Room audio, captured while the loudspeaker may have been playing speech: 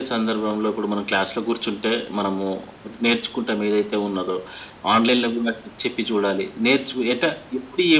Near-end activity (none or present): none